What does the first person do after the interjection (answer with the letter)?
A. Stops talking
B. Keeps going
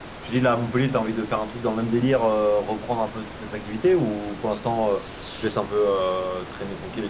A